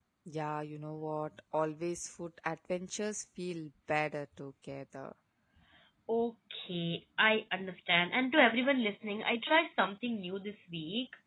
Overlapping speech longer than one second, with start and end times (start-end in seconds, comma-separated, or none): none